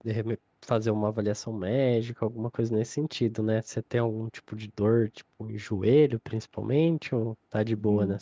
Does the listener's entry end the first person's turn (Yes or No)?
Yes